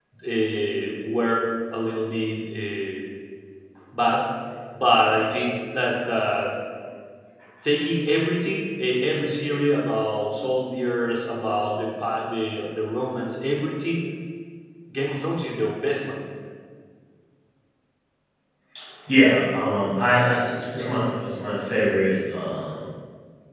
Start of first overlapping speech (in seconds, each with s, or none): none